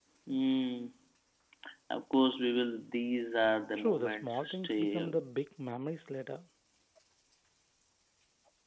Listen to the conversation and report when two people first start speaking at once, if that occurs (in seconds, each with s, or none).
3.8 s